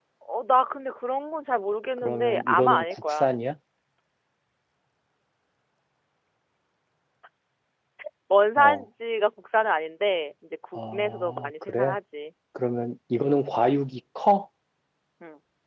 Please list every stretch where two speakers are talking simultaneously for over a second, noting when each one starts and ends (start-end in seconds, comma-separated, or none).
2.0-3.3, 10.7-12.0